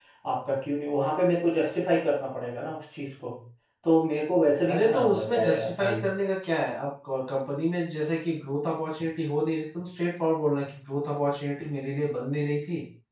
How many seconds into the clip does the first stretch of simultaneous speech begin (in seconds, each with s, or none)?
4.7 s